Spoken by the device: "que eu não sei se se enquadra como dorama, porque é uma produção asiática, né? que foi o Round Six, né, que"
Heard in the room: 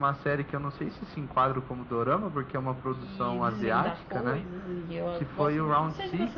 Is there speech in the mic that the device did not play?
Yes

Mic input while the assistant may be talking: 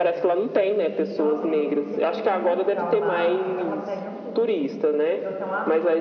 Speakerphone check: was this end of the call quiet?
No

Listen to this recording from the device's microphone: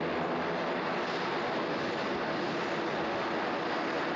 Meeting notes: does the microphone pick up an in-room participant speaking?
No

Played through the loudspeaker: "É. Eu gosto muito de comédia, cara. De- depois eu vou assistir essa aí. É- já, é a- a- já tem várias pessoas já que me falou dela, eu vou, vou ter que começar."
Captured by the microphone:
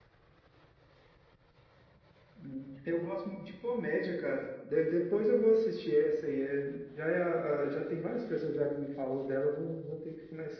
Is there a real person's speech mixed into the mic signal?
No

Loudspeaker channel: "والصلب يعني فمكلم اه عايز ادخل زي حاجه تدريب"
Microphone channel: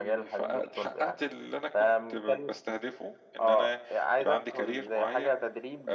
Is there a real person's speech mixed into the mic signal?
Yes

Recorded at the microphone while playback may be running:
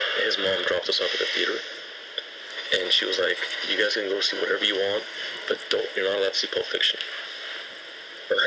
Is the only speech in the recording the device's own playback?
Yes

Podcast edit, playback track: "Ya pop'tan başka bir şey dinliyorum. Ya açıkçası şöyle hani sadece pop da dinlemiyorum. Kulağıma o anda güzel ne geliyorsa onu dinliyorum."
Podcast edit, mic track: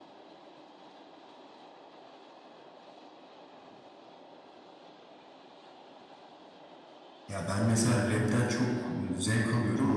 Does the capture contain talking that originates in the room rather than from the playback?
Yes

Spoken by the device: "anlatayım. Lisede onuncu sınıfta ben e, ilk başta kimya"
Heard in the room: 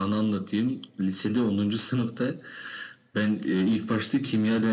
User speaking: No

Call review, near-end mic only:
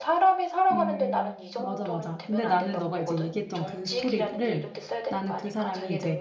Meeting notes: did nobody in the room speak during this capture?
No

